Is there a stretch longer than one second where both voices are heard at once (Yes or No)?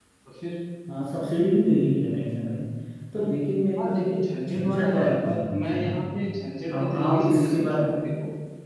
Yes